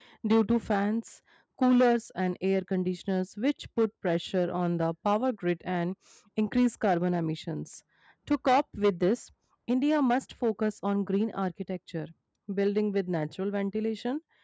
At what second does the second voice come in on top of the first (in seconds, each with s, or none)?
none